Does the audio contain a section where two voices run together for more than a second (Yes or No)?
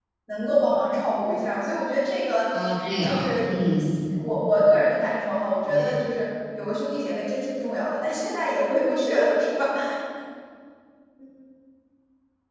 No